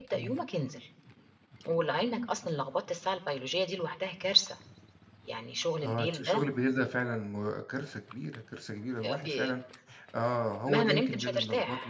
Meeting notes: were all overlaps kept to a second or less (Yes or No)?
No